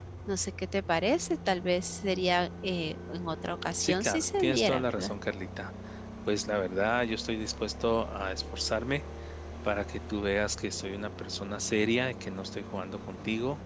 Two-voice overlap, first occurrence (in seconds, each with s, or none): 3.8 s